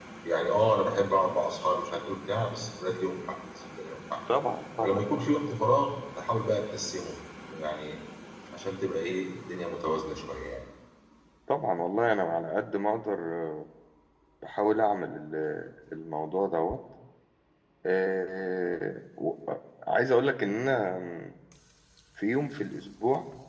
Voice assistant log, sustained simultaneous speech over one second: none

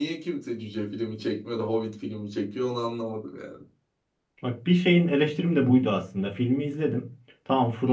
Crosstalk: none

